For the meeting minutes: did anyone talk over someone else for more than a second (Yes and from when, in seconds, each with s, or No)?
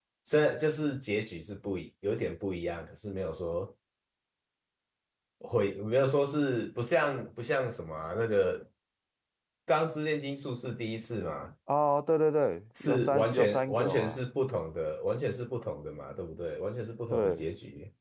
Yes, from 12.8 s